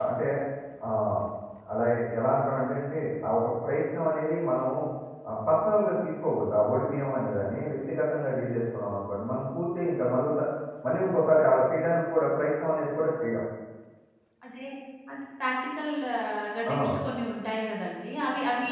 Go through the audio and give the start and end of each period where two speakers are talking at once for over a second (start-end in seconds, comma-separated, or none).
none